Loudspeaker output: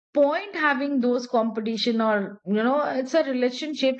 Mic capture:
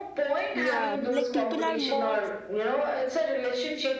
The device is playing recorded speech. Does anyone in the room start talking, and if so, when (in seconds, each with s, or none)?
0.5 s